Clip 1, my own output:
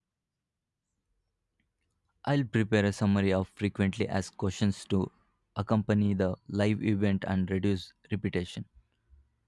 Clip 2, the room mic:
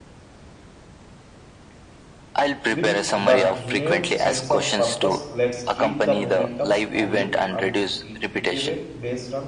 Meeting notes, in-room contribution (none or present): present